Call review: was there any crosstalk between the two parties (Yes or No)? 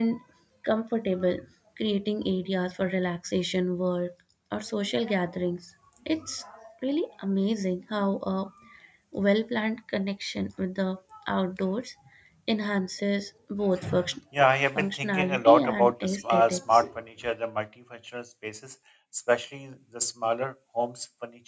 Yes